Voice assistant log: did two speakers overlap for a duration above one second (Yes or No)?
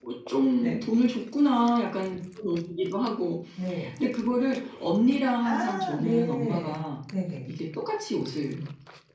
Yes